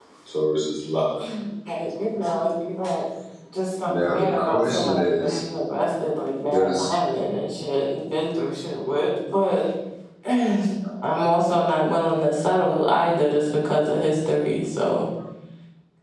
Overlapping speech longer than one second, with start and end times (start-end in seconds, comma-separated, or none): 3.9-5.3